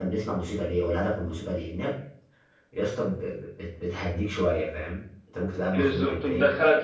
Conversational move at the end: taking over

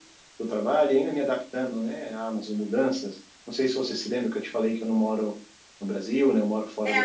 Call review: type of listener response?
taking over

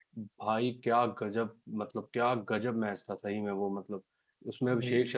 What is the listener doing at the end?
listening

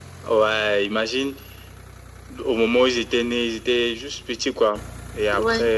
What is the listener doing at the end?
listening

